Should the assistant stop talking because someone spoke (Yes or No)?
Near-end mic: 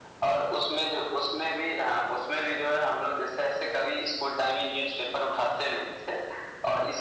No